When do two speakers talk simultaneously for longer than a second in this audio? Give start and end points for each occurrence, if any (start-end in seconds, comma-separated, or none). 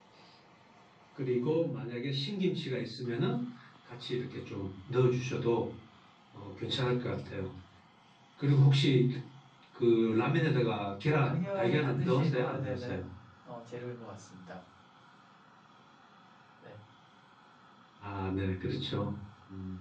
11.1-13.0